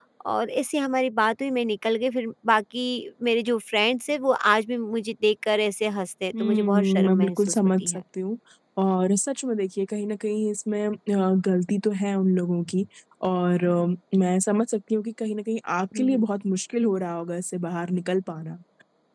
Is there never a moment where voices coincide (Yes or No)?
No